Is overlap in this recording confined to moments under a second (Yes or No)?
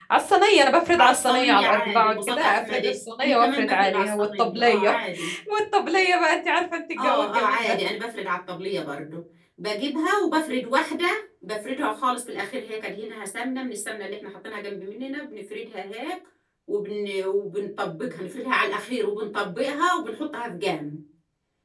No